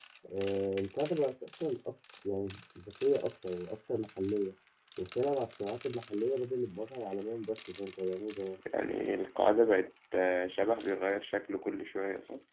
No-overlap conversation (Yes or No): Yes